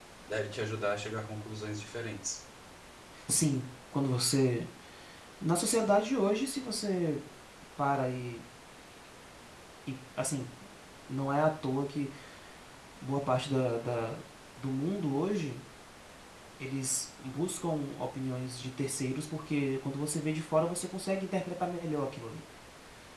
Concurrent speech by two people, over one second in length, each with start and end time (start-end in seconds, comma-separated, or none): none